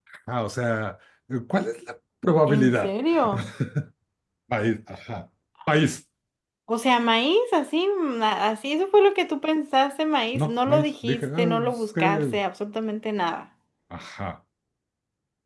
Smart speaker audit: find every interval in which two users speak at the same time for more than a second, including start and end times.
10.3-12.4

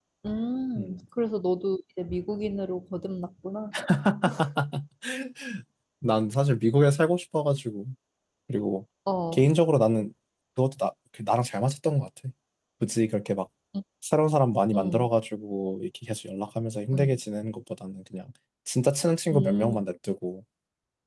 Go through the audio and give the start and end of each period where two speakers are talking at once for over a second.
none

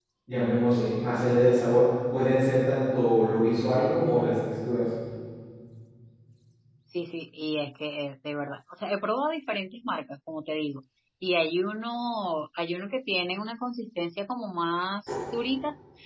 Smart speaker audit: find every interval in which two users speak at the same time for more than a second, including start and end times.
none

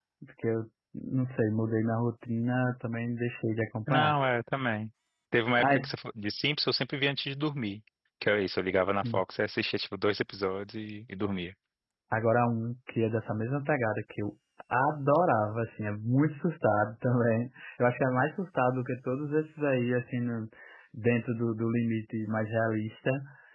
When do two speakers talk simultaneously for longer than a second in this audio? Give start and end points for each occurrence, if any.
none

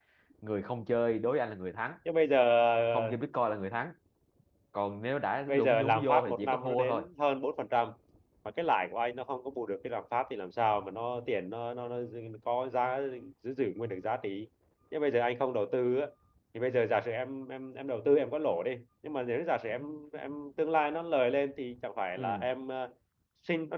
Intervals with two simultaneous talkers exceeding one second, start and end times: 5.5-7.1

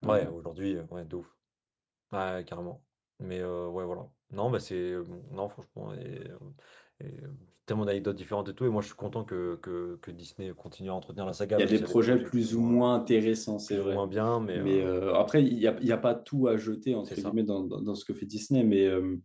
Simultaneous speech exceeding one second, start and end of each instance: 11.6-12.9

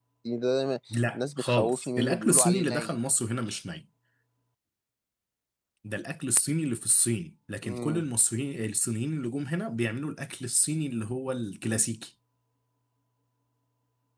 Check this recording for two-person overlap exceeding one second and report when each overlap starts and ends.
1.1-3.0

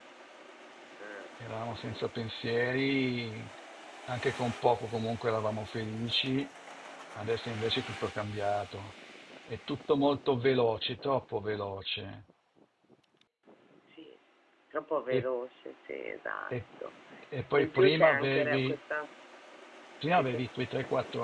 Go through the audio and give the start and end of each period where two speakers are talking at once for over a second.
17.5-18.8

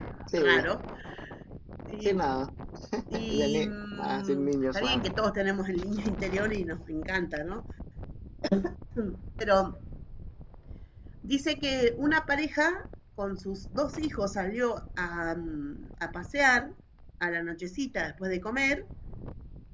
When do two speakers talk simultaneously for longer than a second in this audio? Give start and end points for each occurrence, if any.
3.3-5.0

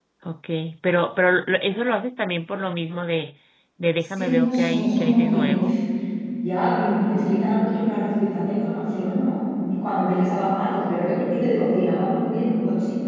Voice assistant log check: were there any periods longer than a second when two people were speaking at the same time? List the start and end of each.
4.1-5.6

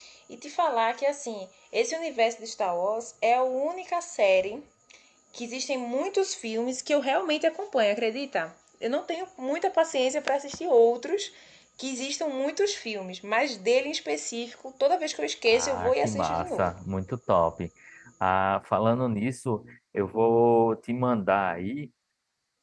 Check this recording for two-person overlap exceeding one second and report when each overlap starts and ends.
15.5-16.7

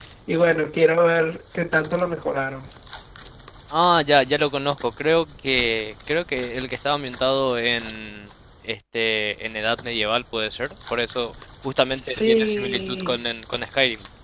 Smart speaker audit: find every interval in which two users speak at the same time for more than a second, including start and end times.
11.8-13.1

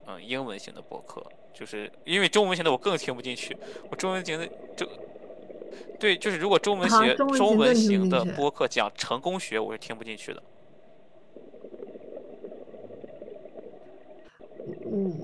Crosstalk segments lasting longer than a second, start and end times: 6.8-8.2

